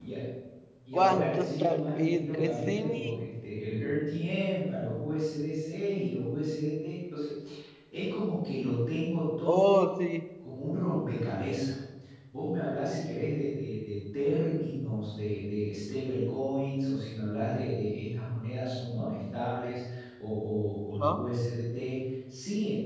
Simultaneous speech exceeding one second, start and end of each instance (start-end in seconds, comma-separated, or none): 0.9-3.3